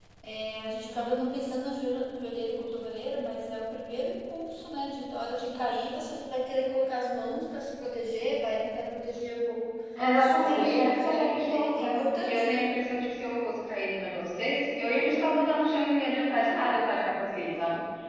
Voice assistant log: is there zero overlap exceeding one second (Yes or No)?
No